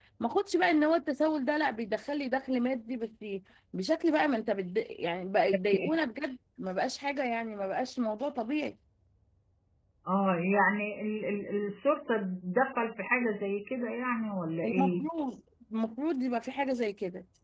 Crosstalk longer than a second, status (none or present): none